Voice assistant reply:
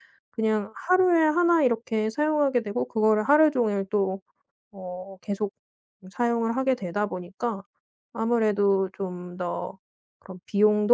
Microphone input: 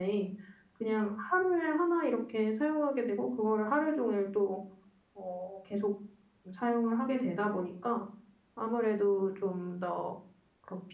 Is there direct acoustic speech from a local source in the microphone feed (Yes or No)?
No